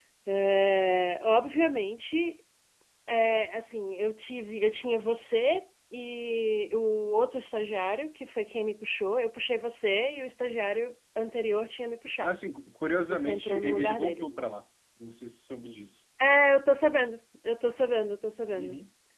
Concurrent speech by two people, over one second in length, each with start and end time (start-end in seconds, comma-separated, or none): 13.1-14.3